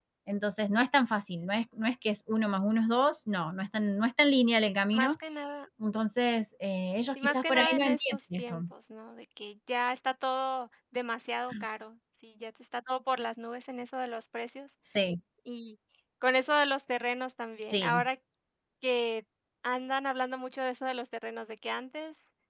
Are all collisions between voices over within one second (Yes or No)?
No